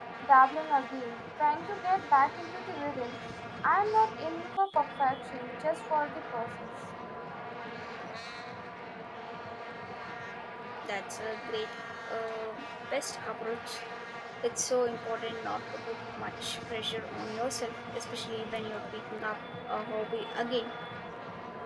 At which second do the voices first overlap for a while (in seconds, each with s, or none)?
none